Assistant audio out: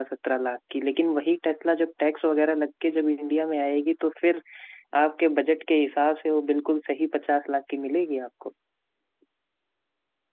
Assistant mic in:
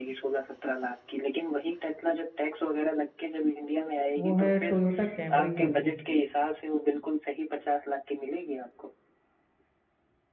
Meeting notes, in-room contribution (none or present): present